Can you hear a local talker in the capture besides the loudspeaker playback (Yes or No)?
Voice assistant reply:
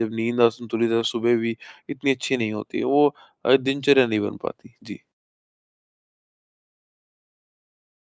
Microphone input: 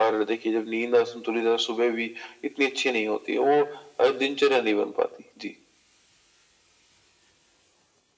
No